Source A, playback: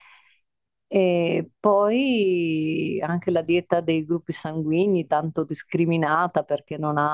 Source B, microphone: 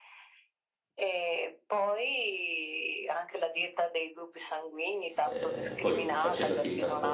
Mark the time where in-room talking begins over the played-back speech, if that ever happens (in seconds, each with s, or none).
5.2 s